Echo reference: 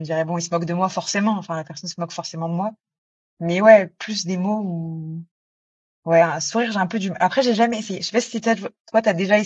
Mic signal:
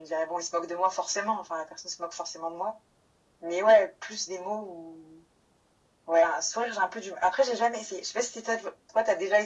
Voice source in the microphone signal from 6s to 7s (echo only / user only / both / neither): echo only